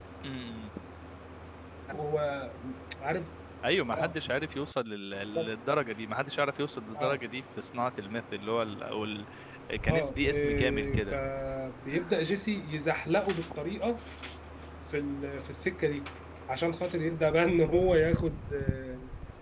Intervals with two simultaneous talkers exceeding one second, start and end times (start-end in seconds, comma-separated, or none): 9.9-11.2